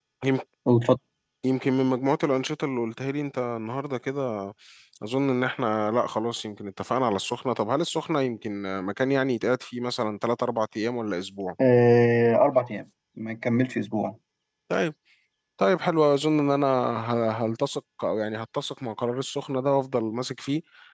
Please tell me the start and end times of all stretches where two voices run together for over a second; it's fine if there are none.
none

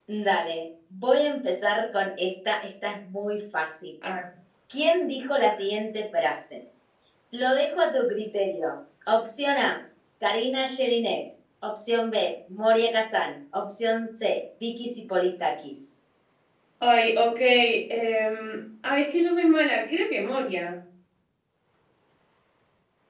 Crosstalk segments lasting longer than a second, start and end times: none

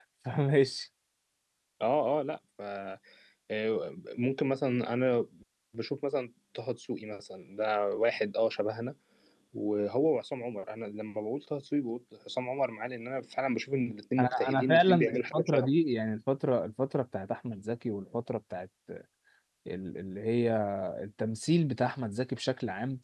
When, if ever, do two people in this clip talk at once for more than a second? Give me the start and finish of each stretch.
14.2-15.7

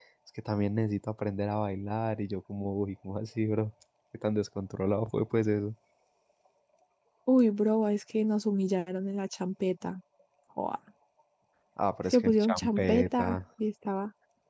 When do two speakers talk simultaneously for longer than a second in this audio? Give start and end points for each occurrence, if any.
12.1-13.4

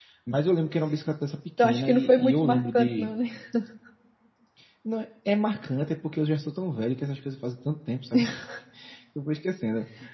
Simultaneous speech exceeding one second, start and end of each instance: 1.6-3.1

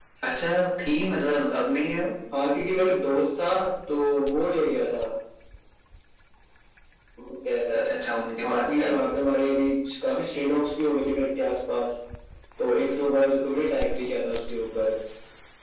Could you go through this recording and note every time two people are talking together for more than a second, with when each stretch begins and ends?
none

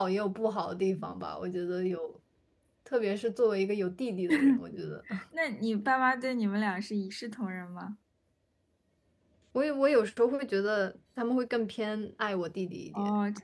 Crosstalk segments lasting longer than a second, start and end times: none

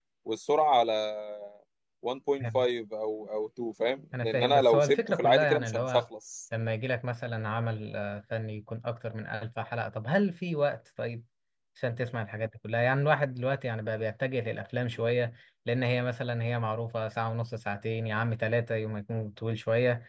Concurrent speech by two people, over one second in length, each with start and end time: 4.2-6.0

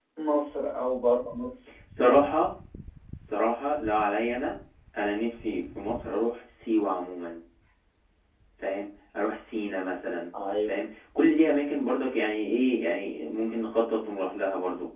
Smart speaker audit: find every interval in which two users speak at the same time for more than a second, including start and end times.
none

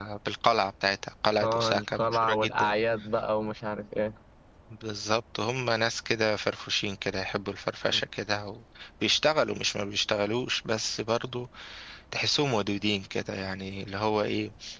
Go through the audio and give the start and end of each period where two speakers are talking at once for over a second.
1.4-2.8

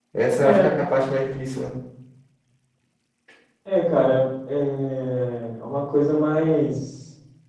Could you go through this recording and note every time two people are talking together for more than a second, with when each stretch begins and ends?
none

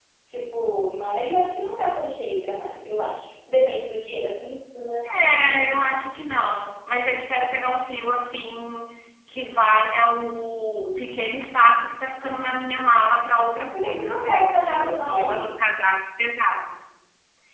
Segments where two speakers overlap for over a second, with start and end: 13.7-15.5

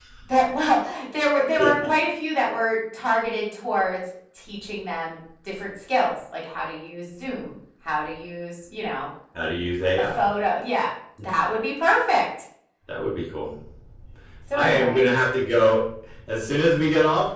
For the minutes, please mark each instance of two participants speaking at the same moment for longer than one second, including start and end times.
none

